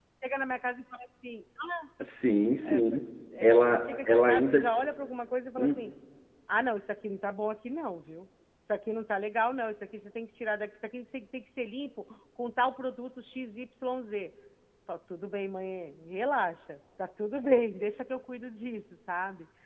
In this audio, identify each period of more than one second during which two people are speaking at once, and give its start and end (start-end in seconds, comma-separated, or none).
3.4-4.6